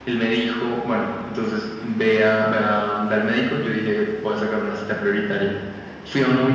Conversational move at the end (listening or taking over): listening